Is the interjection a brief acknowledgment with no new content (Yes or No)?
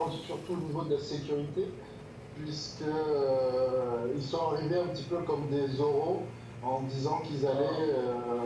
Yes